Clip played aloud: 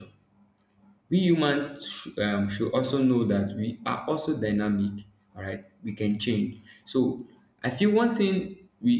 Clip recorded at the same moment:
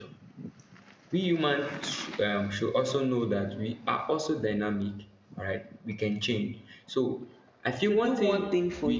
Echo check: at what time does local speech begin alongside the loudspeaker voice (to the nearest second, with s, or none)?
8 s